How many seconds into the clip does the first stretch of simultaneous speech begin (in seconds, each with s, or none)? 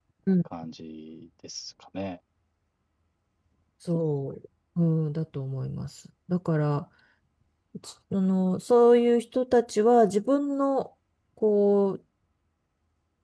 none